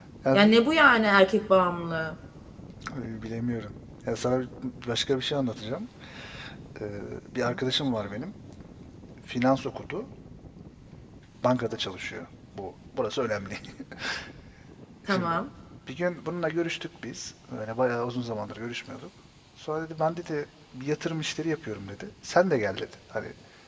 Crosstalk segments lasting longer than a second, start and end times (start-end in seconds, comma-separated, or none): none